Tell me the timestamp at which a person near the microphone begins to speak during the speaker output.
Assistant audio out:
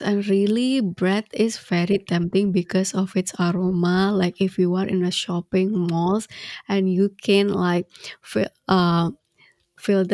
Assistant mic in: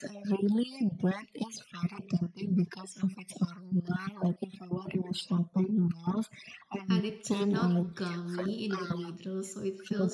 6.9 s

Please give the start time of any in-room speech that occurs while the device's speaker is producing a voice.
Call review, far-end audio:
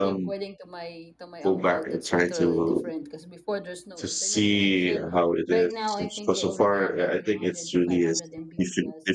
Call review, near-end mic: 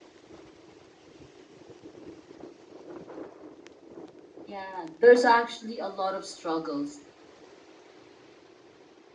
4.5 s

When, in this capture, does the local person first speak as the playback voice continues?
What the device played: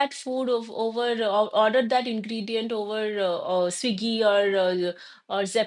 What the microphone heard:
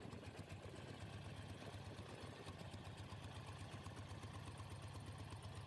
none

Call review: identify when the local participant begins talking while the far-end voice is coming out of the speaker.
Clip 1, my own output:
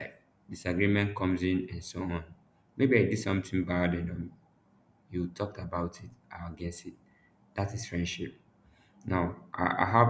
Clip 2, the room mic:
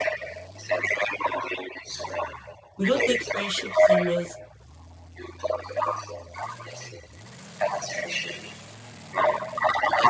2.8 s

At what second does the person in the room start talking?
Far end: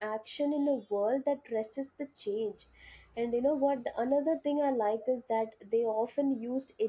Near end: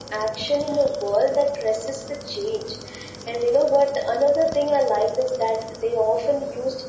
none

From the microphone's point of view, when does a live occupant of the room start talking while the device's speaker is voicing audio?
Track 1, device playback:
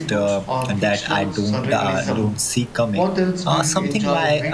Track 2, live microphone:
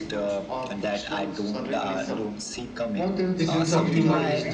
3.3 s

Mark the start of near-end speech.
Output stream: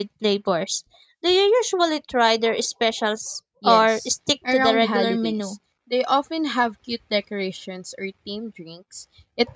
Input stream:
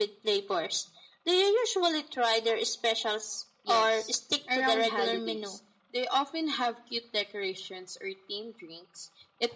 none

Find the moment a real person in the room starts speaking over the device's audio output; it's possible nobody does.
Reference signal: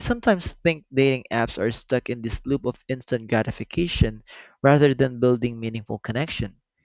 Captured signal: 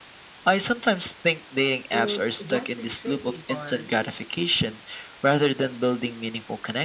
1.9 s

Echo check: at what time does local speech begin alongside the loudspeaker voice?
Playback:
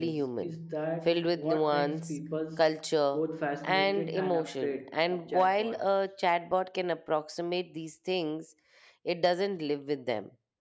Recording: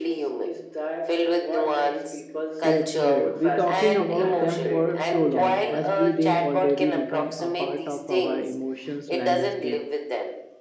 2.6 s

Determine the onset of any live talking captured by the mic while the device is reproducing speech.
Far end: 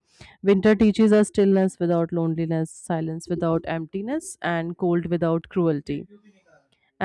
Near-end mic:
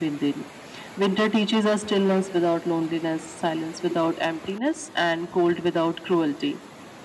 none

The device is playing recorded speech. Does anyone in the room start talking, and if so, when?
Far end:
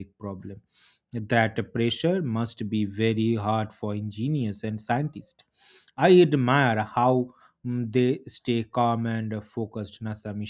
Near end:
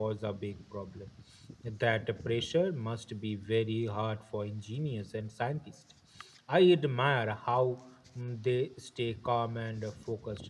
none

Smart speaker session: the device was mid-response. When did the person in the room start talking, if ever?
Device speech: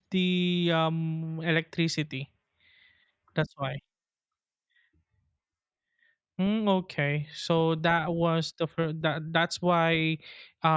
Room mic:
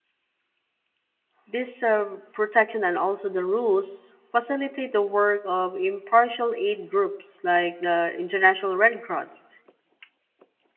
1.4 s

